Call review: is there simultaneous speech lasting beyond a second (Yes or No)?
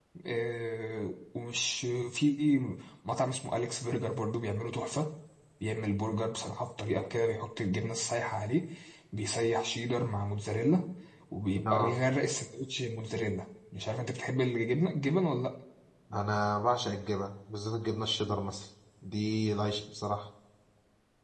No